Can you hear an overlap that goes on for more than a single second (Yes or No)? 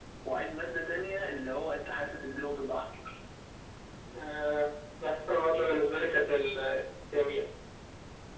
No